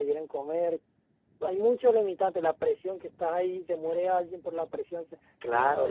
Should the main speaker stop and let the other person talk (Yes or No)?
Yes